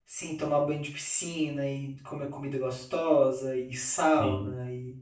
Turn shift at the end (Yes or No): No